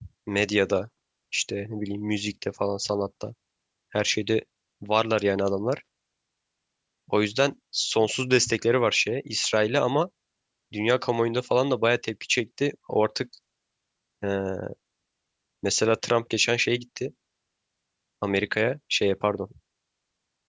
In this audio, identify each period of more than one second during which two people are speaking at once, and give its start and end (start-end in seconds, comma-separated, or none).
none